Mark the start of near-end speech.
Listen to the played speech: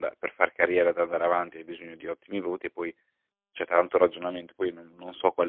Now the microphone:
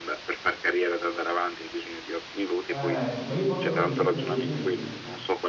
2.7 s

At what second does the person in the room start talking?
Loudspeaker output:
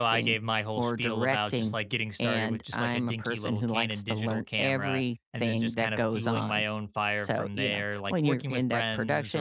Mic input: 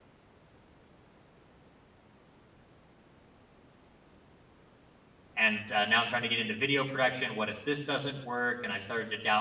5.3 s

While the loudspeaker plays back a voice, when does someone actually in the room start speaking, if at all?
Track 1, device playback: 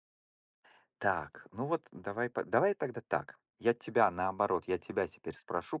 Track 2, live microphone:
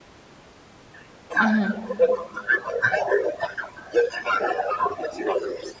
1.4 s

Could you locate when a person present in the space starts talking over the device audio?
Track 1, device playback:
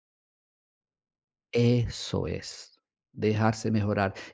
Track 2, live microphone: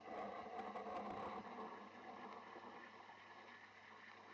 none

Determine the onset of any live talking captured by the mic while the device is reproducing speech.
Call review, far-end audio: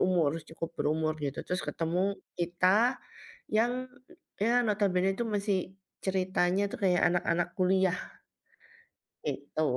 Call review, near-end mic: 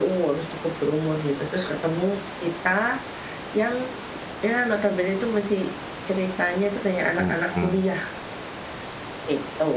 7.2 s

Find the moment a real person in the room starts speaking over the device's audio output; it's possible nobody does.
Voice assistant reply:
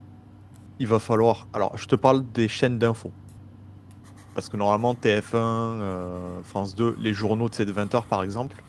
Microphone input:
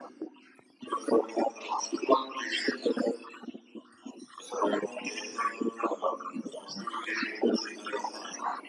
none

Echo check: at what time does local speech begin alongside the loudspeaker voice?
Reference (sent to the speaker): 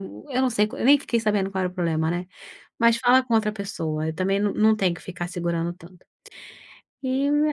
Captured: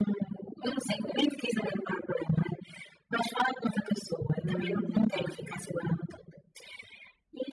4.4 s

